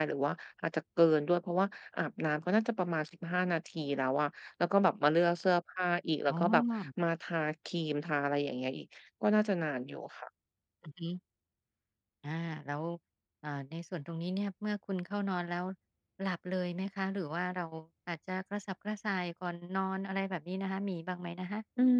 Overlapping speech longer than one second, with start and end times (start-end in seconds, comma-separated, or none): none